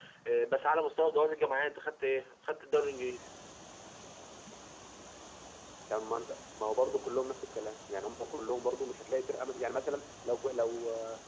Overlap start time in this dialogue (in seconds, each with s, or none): none